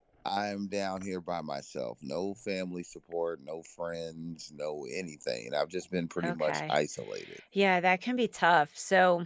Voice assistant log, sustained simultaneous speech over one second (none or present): none